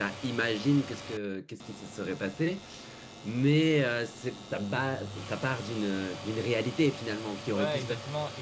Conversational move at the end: taking over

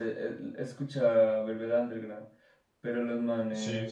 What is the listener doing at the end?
listening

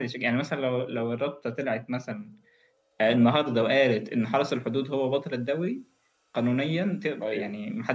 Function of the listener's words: listening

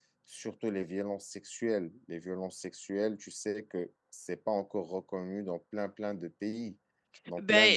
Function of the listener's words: taking over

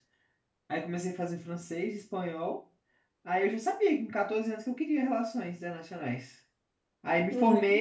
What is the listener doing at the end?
listening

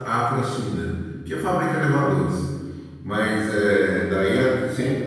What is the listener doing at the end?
listening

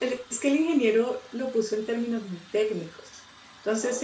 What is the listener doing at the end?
listening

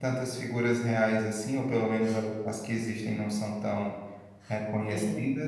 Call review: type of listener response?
listening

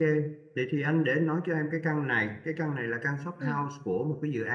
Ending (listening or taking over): listening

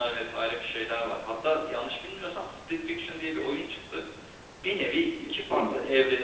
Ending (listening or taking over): listening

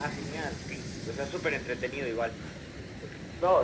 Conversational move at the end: taking over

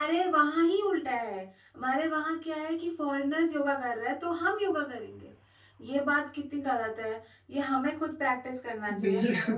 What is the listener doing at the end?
listening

